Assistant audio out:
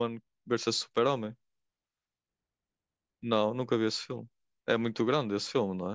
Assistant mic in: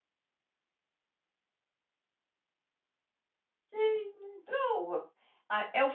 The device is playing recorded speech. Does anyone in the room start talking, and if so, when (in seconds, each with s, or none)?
3.7 s